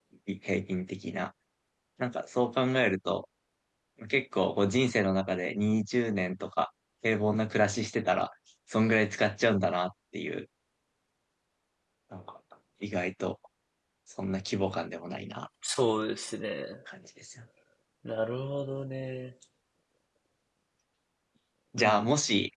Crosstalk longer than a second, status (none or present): none